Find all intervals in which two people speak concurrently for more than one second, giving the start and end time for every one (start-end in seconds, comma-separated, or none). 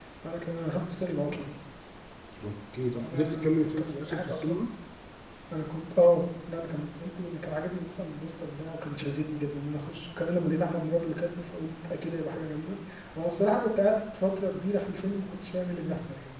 3.0-4.6